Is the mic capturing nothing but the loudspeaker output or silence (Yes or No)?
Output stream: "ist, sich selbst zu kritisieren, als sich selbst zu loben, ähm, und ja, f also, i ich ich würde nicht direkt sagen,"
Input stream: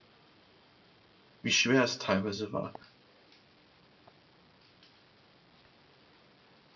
No